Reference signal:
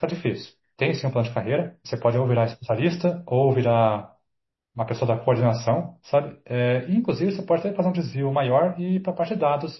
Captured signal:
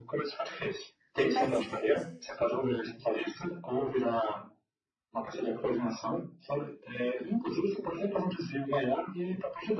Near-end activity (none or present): present